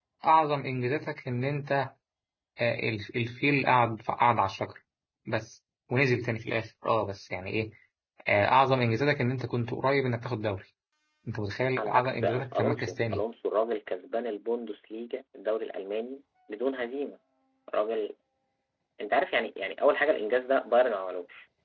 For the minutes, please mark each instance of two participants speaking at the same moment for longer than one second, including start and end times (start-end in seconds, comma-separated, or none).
11.8-13.2